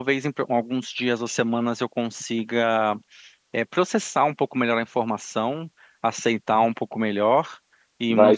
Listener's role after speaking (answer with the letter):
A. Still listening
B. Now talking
A